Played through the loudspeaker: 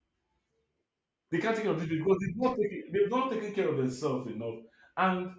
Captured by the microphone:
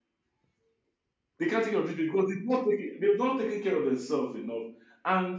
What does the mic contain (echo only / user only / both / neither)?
echo only